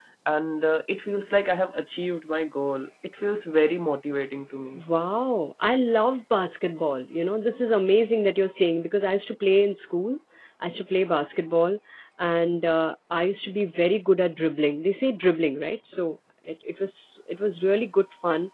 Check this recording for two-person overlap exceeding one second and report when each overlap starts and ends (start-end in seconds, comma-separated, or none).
none